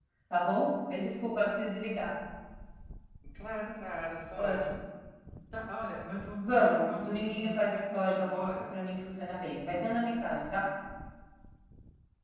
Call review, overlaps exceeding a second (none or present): present